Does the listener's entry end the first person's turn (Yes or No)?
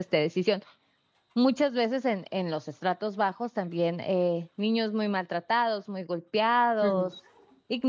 No